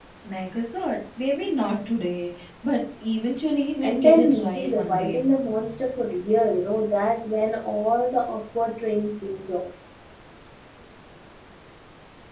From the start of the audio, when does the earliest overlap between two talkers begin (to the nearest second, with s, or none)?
4 s